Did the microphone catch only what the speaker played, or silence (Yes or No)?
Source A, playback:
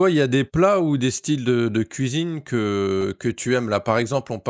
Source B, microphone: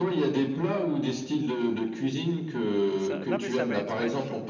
No